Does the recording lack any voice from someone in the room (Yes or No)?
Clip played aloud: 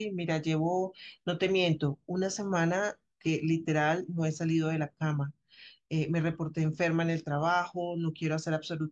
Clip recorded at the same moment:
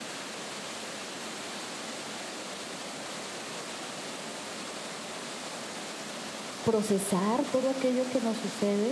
No